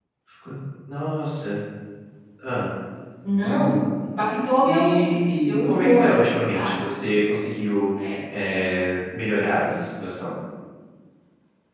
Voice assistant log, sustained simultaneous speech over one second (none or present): present